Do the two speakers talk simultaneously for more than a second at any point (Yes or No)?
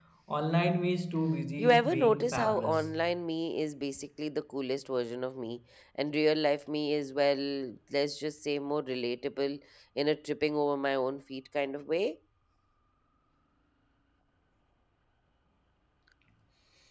Yes